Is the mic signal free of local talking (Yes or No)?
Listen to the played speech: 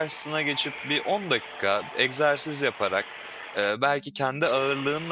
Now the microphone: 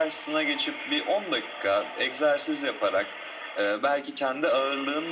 Yes